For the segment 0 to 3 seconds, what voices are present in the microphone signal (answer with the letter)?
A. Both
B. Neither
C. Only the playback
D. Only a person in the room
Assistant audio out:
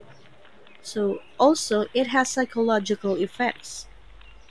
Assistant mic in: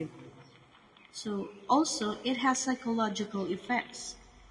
C